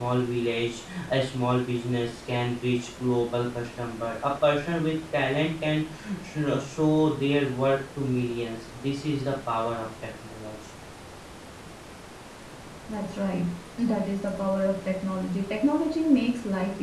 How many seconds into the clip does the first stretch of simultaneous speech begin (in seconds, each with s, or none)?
none